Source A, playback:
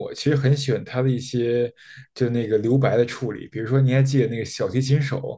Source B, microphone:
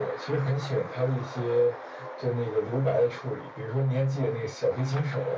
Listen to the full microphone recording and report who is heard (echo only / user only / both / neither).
echo only